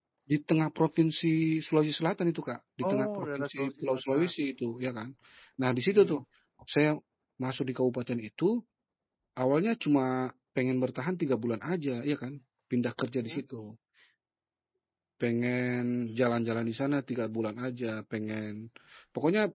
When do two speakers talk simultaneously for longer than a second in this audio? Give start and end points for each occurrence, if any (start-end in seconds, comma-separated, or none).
2.8-4.3